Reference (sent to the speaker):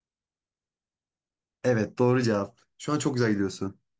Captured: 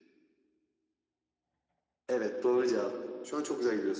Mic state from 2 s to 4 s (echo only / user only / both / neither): echo only